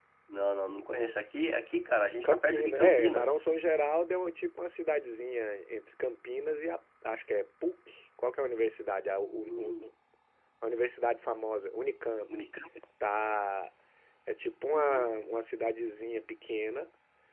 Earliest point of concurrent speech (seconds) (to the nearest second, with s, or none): 2 s